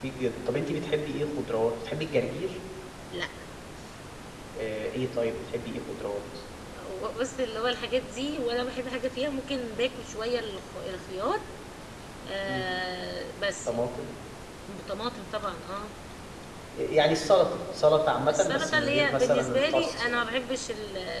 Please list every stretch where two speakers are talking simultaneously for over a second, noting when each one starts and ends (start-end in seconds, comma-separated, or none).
18.3-20.2